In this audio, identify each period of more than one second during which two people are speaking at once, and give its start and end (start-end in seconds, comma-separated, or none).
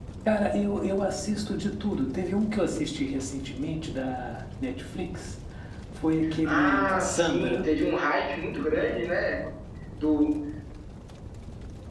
6.4-7.7